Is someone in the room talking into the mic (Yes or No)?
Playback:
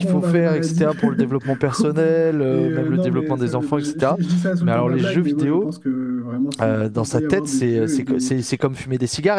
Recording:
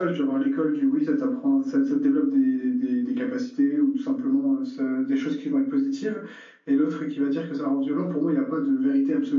Yes